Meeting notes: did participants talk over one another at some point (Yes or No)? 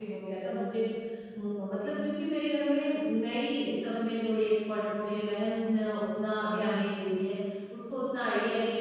No